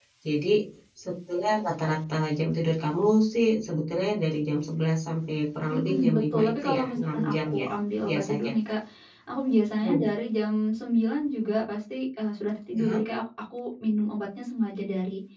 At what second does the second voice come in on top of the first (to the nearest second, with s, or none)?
6 s